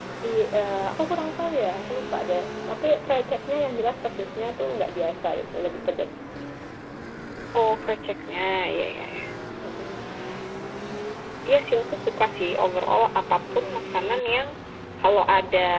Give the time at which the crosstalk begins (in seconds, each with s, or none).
none